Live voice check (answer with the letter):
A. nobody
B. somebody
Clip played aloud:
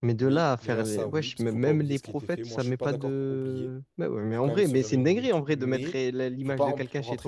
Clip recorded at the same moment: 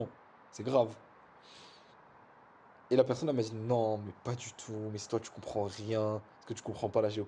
B